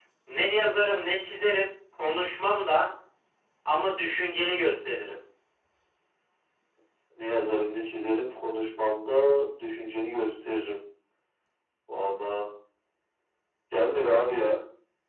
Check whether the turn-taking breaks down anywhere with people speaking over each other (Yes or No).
No